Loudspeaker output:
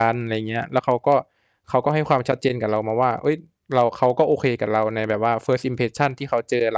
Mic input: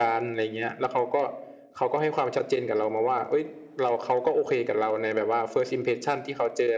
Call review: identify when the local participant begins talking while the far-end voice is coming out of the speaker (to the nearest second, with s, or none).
none